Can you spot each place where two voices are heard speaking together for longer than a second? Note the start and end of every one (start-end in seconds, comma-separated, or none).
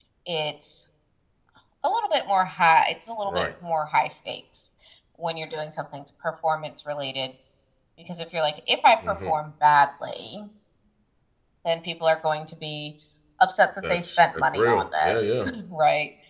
13.9-15.5